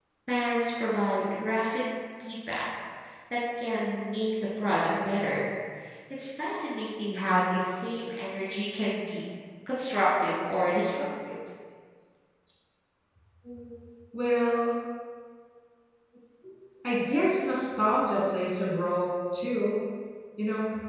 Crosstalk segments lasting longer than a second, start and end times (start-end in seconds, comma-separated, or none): none